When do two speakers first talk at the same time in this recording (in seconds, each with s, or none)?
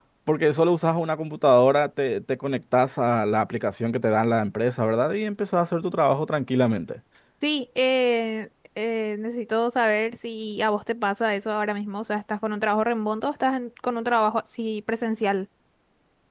none